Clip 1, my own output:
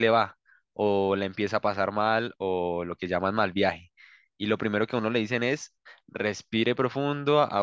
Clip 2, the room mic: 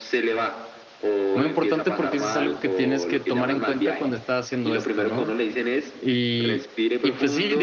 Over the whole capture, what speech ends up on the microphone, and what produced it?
both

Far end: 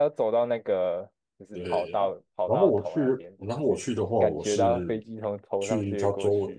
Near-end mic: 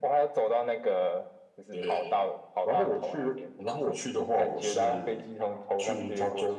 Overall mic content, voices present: echo only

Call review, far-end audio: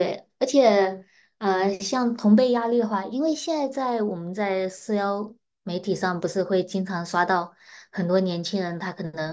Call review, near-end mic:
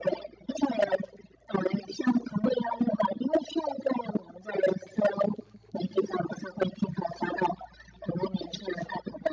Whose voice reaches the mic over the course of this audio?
echo only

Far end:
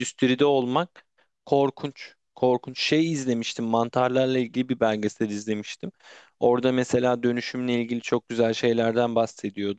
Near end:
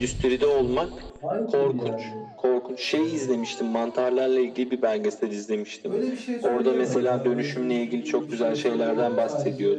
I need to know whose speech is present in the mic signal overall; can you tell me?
both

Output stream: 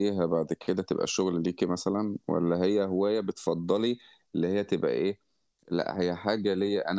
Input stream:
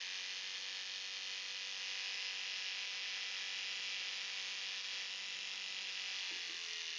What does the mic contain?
neither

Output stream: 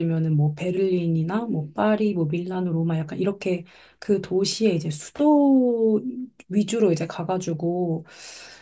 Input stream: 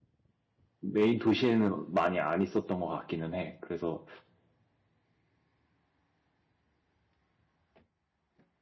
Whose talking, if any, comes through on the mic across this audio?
user only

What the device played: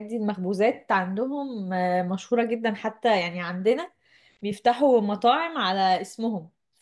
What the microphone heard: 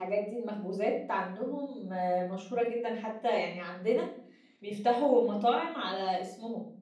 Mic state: echo only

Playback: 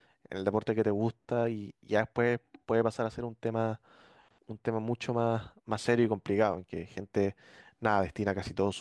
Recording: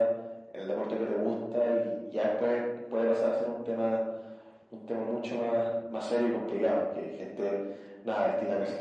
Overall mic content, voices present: echo only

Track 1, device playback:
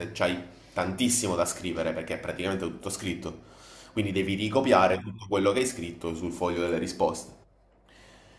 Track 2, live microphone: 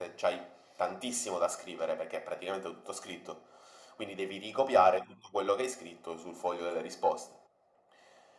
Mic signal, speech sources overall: echo only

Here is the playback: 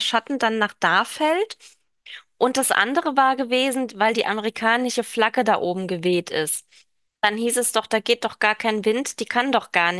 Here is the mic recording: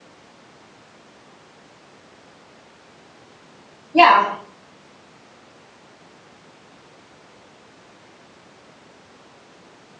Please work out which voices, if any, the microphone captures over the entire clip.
user only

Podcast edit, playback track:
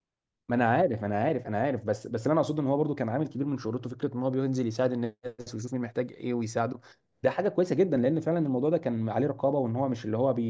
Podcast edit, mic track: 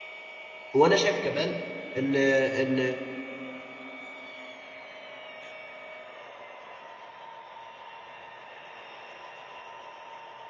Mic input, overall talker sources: user only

